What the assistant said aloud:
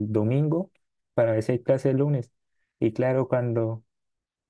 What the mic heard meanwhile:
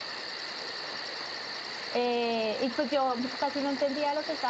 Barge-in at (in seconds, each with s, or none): 1.9 s